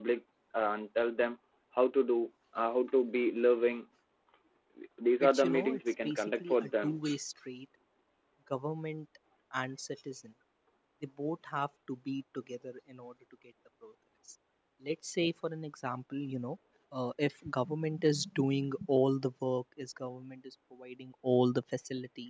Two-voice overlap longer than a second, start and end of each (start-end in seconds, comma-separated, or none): 5.2-7.0